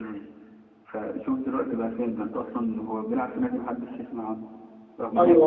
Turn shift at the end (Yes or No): No